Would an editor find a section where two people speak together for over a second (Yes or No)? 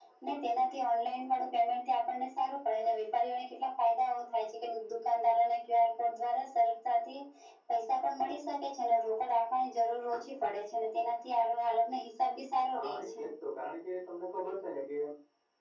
No